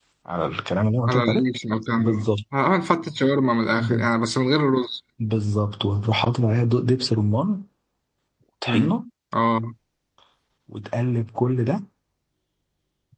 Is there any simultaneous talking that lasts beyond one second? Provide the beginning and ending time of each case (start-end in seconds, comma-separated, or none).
none